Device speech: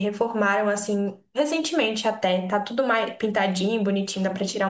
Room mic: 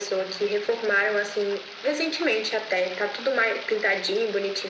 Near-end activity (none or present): none